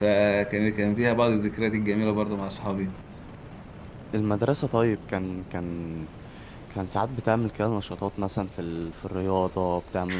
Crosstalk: none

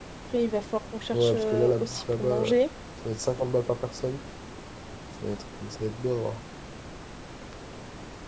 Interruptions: present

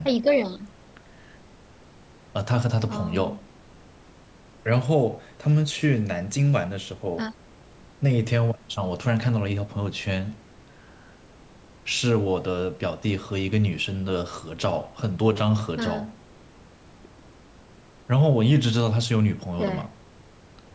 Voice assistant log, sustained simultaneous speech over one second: none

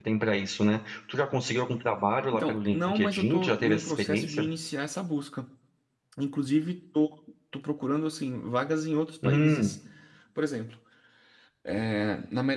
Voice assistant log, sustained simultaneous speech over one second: present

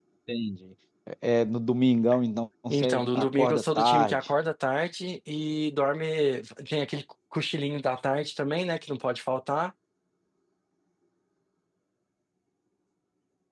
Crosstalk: present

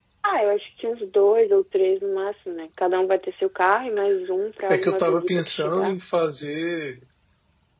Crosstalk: present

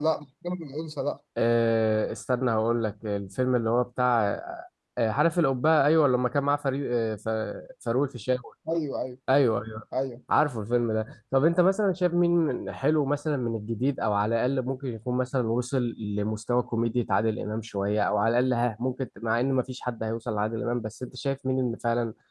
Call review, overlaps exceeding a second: none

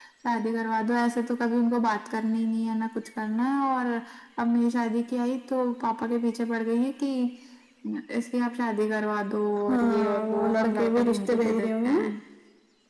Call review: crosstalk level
present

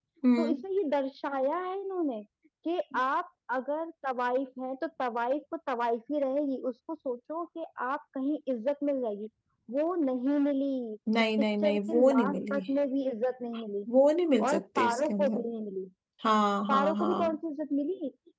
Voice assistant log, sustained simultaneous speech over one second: present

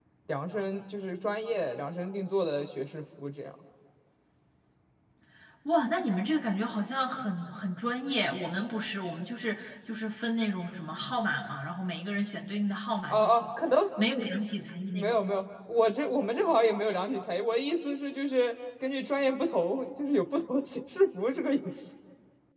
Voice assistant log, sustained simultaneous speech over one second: none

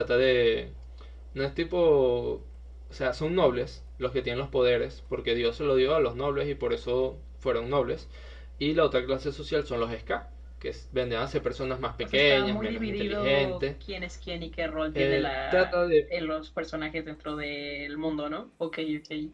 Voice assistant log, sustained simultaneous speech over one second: present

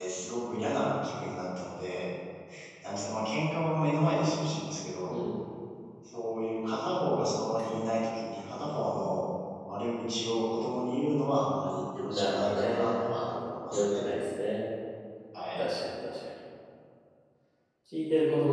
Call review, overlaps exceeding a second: present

